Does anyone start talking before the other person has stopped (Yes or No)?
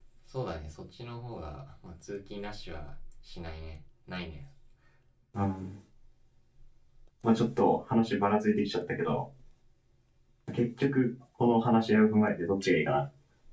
No